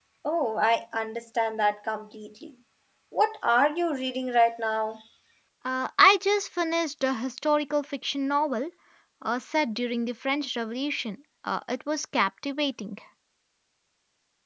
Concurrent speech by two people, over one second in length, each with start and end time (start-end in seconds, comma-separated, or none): none